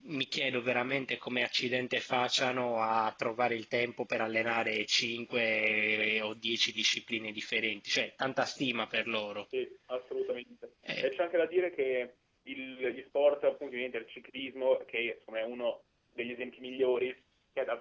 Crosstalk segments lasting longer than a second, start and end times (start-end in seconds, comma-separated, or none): none